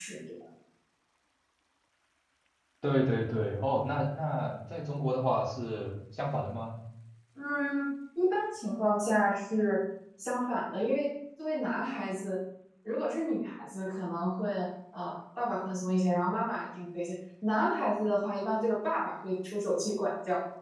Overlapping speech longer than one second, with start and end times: none

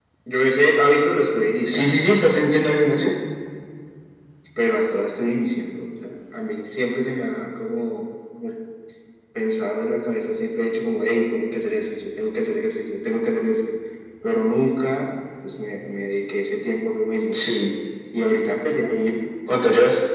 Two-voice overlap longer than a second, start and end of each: none

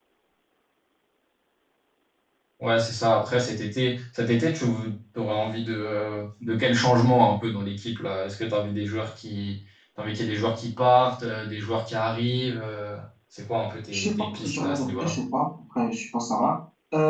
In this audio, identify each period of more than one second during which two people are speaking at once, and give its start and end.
13.9-15.2

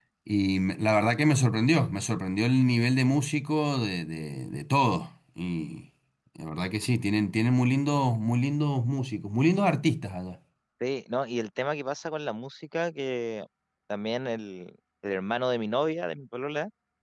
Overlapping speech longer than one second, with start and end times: none

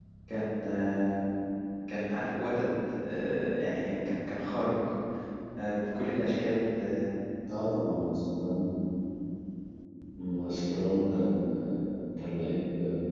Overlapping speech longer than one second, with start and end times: none

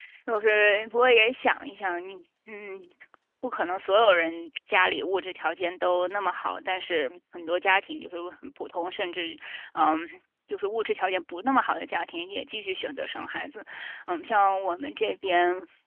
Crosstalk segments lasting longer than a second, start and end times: none

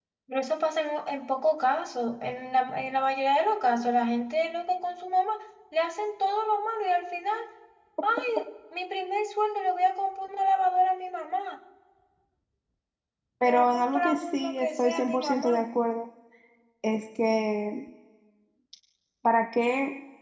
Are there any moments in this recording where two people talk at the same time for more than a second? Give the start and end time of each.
13.5-15.6

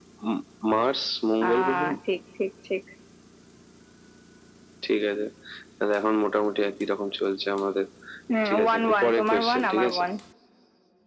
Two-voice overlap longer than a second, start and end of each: 8.4-10.0

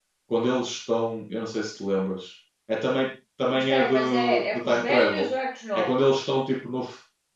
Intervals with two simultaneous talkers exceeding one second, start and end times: 3.5-5.3

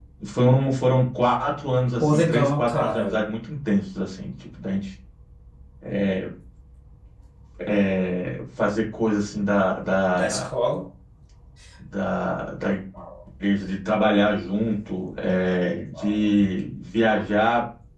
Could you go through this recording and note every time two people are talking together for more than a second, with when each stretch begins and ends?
2.0-3.2

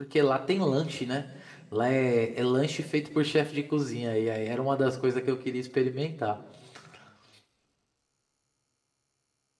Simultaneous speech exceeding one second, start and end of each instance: none

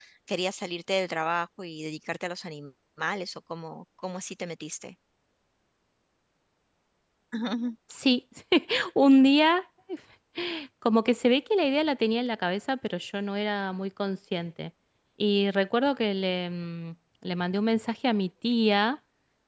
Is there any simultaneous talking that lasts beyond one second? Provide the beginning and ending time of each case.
none

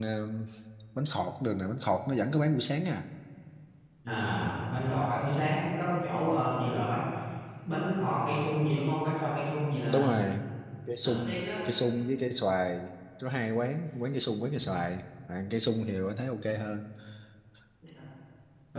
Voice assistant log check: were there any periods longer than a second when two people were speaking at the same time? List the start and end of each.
none

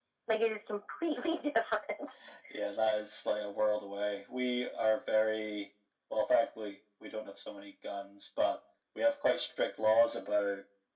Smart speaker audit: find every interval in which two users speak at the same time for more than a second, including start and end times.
none

